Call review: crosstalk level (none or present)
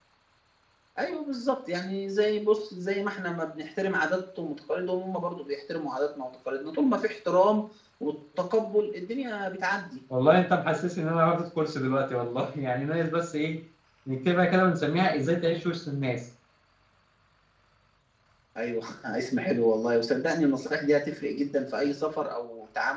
none